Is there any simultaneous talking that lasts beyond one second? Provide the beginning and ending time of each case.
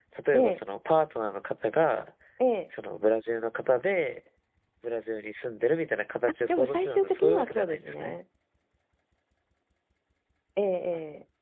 6.5-8.2

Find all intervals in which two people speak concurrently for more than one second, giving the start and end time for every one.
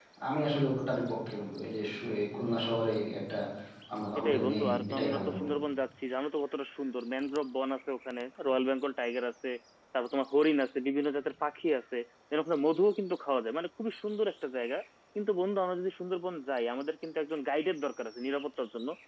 4.2-5.5

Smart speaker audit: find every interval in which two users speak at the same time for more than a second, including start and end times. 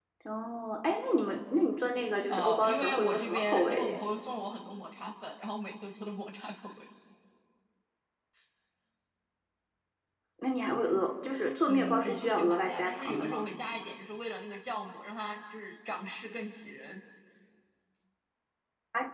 2.3-4.0, 11.7-13.4

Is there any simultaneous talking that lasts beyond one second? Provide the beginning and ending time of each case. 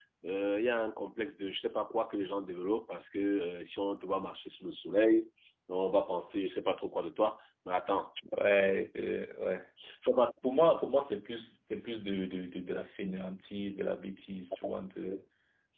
none

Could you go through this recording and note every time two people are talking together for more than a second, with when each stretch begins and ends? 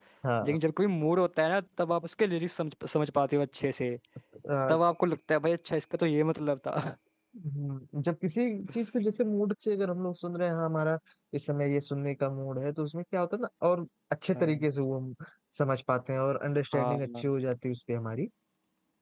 none

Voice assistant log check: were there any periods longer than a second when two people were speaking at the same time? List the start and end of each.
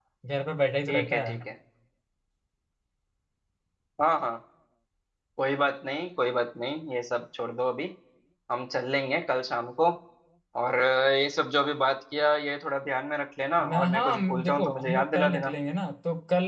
13.6-15.5

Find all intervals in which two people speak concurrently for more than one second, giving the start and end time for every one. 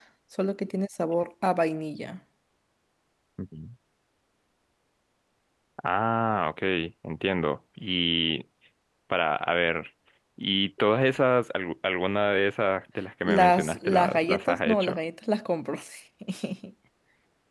13.2-15.0

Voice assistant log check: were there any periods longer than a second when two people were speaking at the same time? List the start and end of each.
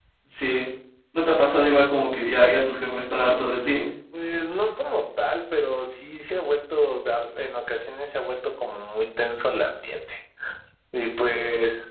none

